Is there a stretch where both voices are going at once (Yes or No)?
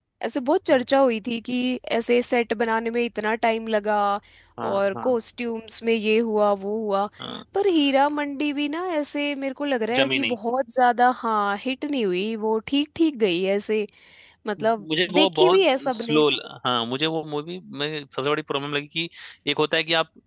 Yes